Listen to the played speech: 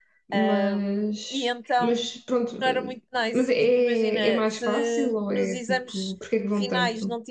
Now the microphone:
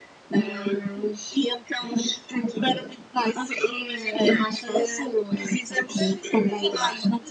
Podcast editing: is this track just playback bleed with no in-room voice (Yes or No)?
No